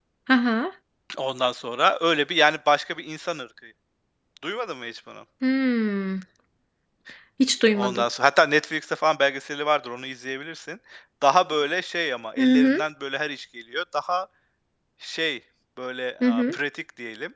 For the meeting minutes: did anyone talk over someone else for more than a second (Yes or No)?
No